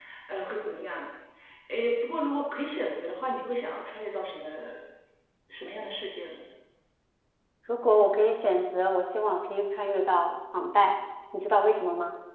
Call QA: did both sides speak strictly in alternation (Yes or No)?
Yes